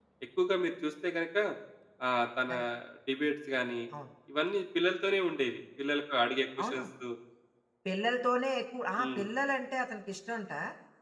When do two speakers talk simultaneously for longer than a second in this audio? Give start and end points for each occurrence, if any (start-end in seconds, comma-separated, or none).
none